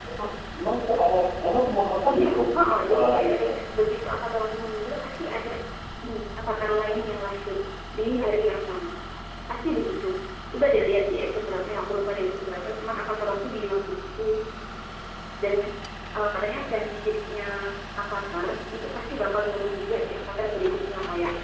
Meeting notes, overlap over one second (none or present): present